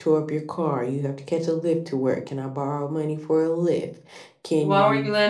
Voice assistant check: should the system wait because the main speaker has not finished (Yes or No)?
No